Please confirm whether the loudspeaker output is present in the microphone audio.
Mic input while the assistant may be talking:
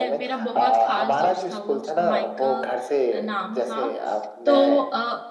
Yes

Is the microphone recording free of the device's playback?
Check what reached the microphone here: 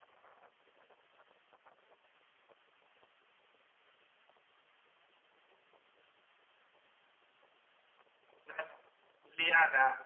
Yes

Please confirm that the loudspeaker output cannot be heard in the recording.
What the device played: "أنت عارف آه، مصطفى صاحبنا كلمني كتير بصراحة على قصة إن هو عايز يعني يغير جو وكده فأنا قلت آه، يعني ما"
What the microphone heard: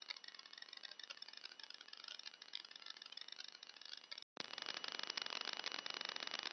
Yes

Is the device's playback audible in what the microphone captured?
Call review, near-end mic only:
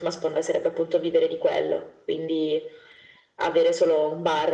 Yes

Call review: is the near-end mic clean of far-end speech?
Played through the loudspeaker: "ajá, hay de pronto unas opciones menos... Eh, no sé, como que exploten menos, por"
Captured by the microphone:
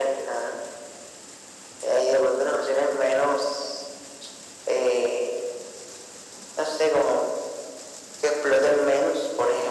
No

